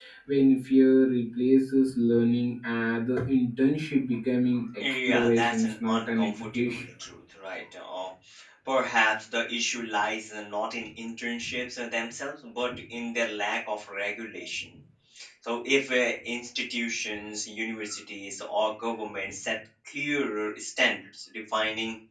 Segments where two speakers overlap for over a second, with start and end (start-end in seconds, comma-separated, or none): 5.0-6.8